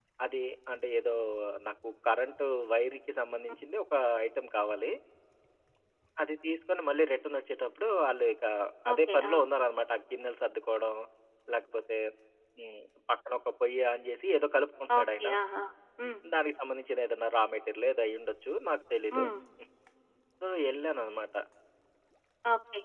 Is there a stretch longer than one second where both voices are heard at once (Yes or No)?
No